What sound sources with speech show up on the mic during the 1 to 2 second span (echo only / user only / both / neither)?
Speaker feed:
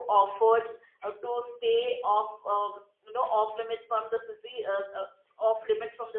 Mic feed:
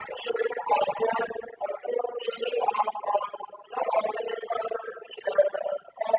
echo only